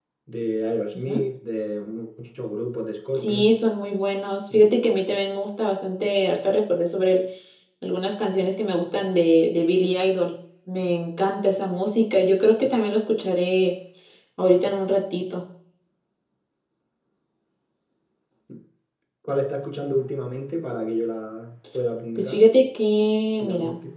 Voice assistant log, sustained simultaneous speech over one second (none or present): none